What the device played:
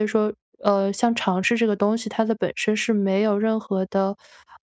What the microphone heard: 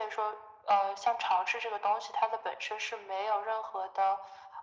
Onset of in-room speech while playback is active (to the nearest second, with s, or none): none